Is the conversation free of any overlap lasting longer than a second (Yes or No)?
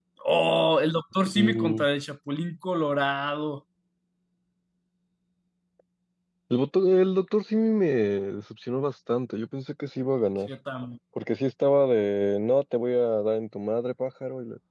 Yes